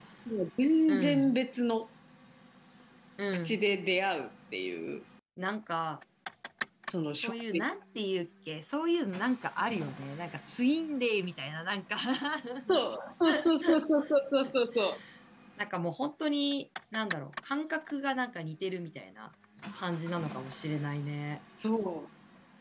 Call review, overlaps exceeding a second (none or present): none